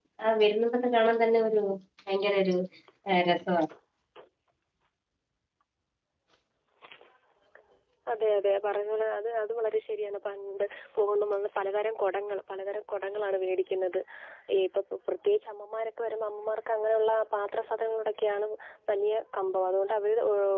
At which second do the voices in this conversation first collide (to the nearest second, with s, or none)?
none